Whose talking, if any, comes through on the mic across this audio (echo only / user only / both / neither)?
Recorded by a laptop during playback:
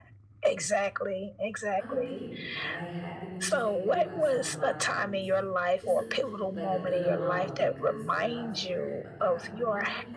both